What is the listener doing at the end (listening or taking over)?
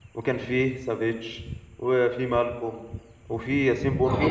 listening